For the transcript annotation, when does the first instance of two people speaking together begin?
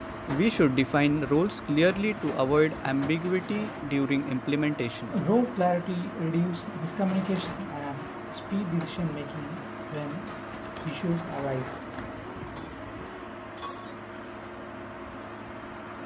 none

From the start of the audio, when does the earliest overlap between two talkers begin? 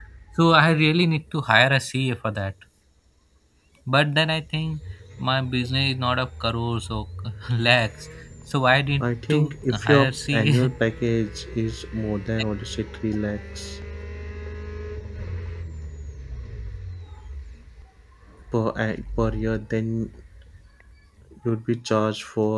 9.3 s

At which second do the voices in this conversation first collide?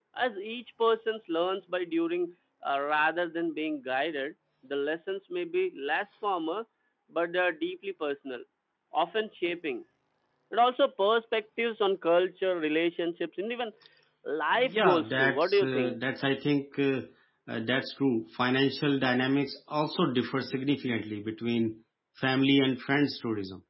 14.6 s

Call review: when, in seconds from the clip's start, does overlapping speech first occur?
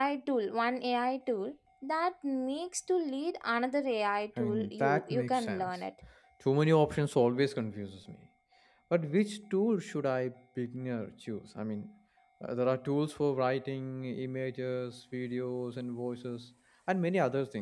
4.4 s

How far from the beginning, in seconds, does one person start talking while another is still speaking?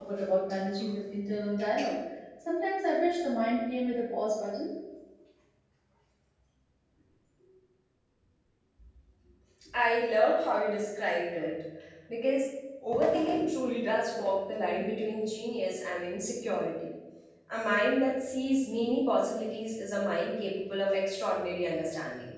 none

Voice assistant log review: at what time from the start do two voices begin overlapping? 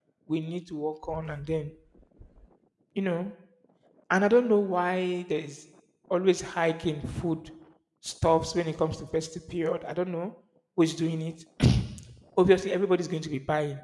none

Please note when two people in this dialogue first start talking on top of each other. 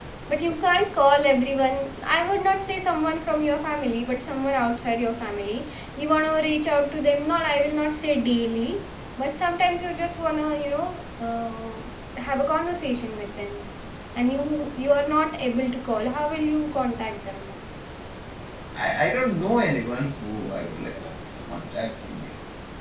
none

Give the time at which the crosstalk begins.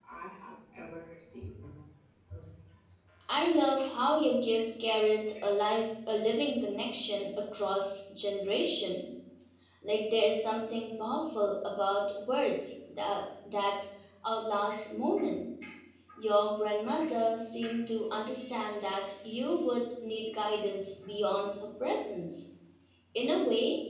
none

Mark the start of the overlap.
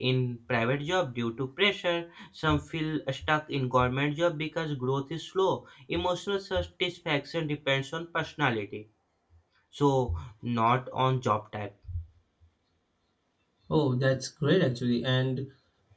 none

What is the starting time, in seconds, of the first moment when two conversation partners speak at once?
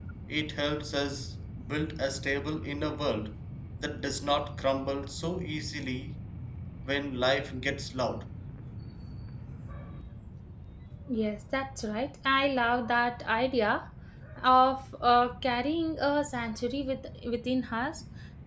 none

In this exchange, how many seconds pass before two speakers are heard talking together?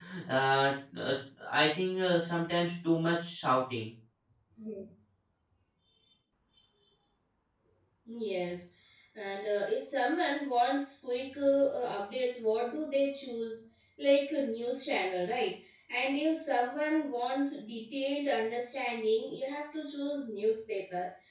none

